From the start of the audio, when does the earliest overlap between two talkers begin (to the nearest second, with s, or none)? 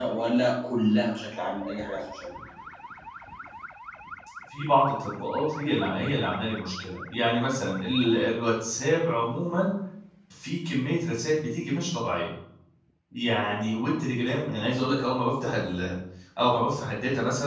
none